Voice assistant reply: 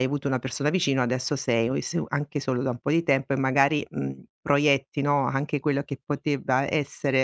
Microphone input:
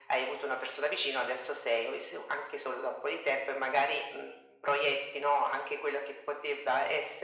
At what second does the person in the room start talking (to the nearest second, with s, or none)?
none